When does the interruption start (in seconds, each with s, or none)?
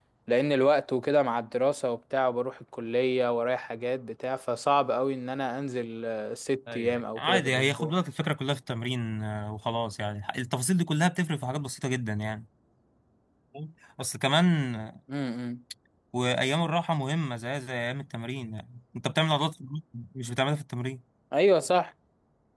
6.7 s